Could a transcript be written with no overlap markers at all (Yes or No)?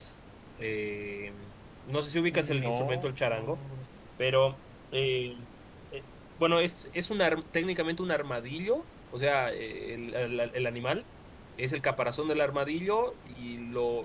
No